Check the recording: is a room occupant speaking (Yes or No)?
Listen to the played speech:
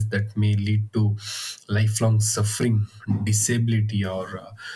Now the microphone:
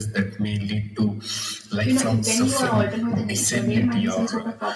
Yes